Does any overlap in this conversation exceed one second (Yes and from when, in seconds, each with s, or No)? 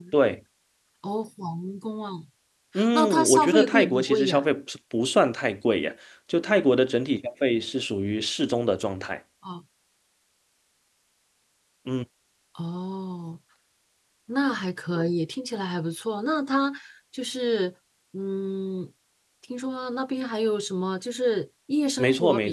Yes, from 2.9 s